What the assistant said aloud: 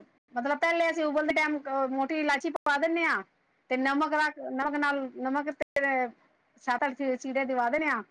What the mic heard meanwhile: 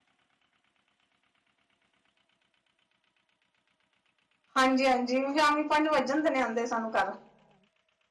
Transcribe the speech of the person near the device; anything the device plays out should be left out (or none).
ਹਾਂਜੀ ਹਾਂਜੀ। ਸ਼ਾਮੀ ਪੰਜ ਵੱਜਣ ਦੇ ਨੇ ਆਉਂਦੇ ਸਾਨੂੰ ਘਰ